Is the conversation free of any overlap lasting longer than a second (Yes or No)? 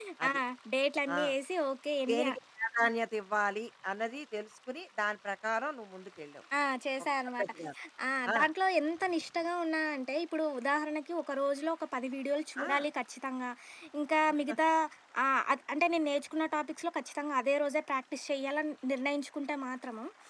Yes